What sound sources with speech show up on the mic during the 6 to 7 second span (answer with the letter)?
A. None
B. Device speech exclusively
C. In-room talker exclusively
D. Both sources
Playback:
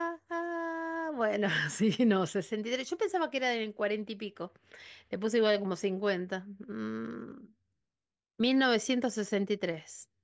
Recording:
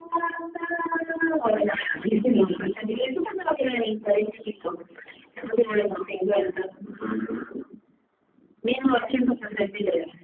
B